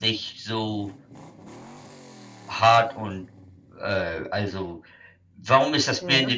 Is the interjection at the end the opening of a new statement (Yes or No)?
No